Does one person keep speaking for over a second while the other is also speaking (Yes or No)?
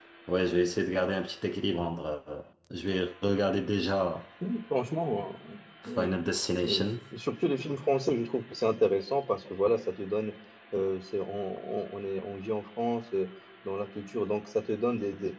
No